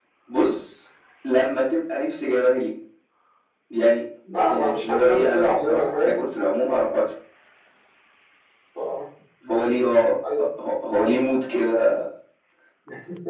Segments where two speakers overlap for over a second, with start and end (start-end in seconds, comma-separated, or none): 4.5-6.2